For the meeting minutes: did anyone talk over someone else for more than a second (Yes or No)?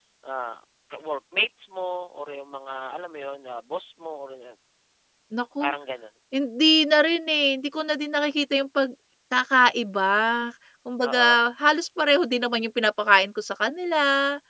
No